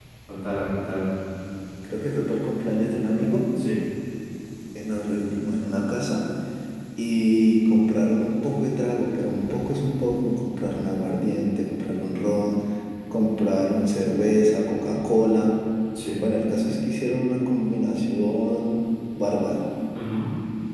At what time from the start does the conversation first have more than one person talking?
none

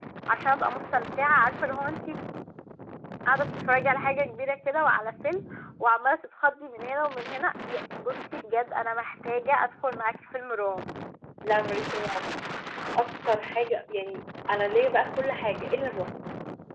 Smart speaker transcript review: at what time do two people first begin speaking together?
none

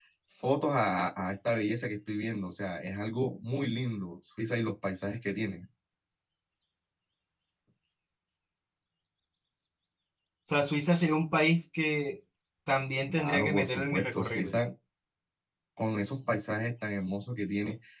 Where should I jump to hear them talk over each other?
13 s

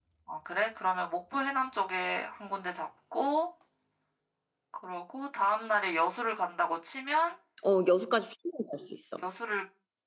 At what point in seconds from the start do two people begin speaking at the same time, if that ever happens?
none

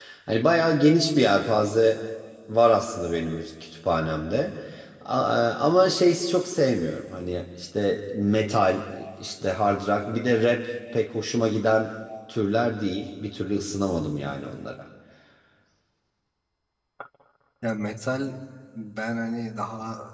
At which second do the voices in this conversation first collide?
none

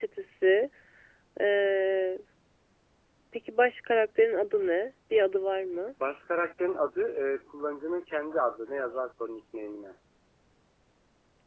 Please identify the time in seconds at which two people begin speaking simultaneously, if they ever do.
none

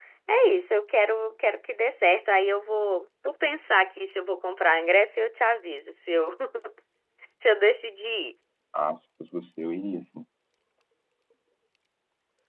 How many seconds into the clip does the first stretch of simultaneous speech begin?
none

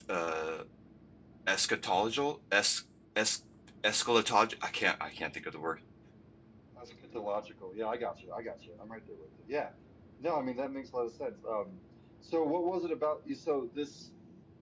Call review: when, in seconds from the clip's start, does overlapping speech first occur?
none

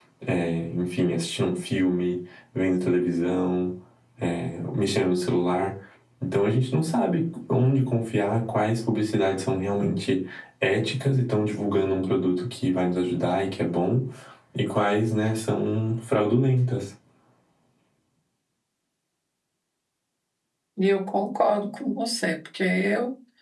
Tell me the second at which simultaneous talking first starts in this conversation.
none

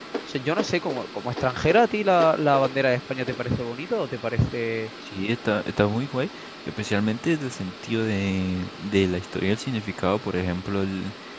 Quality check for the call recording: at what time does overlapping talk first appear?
none

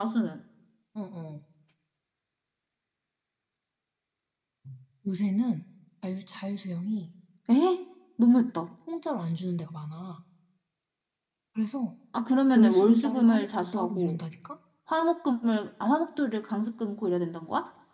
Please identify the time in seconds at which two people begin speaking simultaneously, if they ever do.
13 s

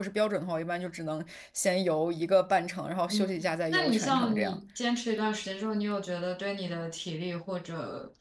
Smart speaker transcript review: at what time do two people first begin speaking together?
3 s

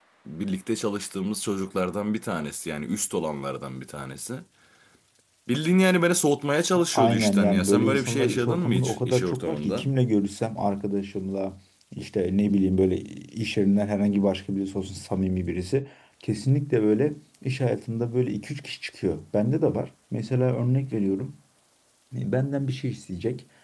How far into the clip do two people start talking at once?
7 s

